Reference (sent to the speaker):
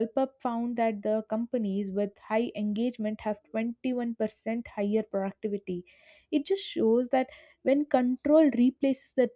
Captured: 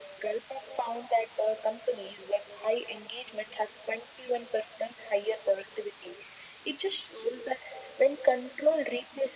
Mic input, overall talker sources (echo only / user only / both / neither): echo only